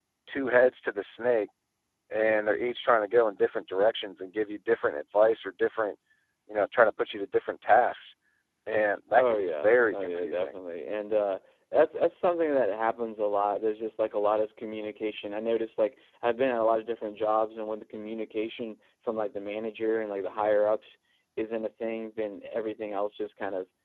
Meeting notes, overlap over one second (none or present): present